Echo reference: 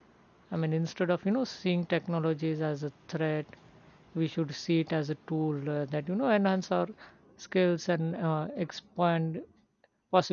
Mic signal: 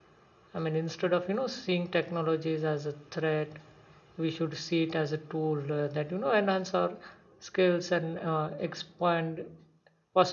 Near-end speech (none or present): none